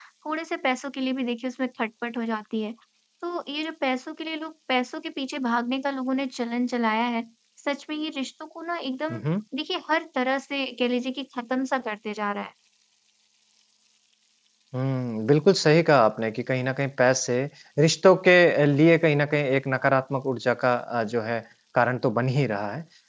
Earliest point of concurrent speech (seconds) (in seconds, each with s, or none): none